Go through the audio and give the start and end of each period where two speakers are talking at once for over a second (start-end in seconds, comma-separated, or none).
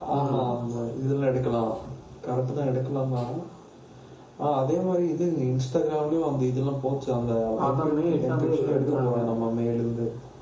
7.7-9.2